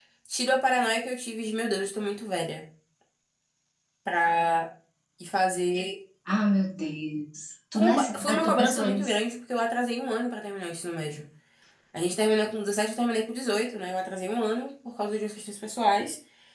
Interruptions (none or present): present